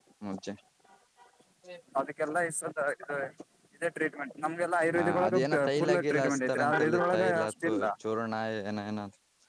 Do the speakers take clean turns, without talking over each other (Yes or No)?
No